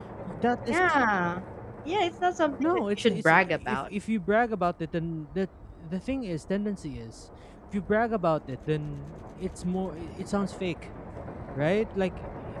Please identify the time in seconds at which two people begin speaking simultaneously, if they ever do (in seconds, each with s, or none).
2.6 s